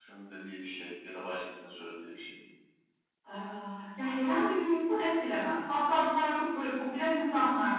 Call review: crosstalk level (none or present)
none